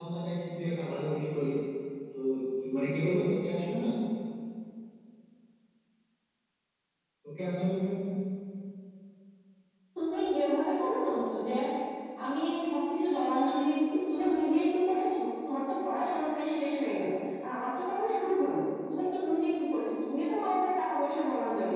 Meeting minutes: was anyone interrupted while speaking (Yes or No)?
No